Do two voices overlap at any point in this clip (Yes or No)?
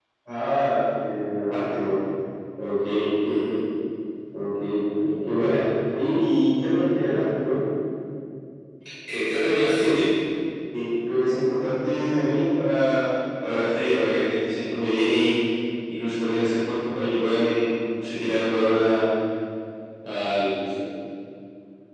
No